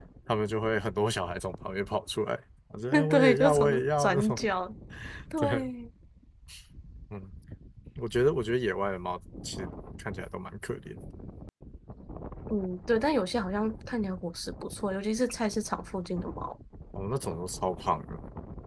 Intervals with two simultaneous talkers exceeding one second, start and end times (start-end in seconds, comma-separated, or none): 3.1-4.4